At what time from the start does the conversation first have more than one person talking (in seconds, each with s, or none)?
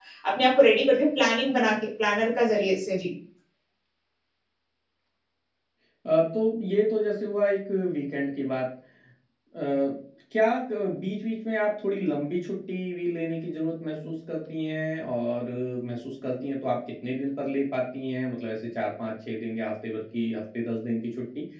none